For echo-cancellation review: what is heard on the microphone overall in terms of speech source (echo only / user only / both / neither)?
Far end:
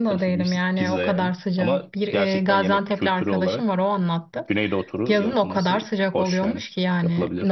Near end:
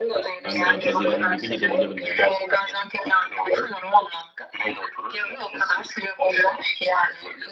both